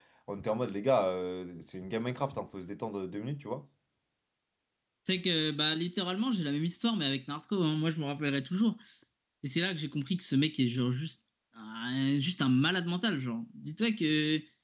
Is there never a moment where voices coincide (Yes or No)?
Yes